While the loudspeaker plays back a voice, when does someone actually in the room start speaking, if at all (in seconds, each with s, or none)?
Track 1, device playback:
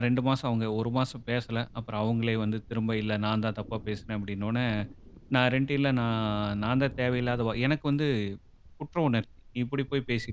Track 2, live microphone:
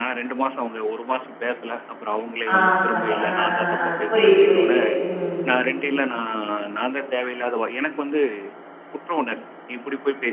2.5 s